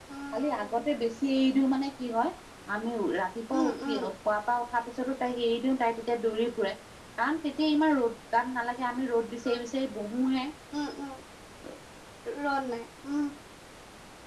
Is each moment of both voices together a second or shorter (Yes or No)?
Yes